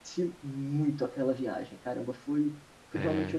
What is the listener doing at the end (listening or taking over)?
listening